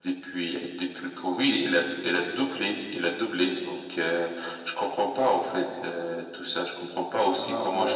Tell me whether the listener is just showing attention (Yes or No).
Yes